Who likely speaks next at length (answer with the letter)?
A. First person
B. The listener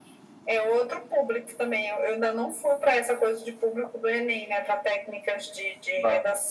A